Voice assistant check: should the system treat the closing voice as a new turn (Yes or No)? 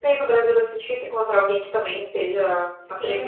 Yes